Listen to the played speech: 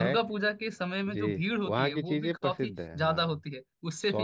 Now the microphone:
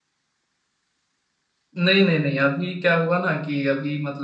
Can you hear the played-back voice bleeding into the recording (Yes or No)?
No